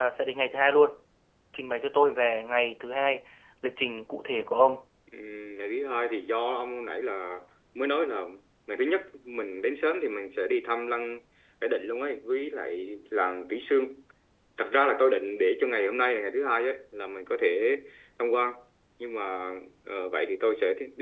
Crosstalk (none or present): none